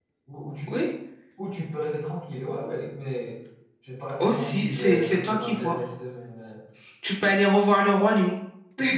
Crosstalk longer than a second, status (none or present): present